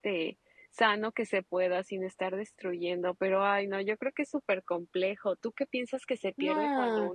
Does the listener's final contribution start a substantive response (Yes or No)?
No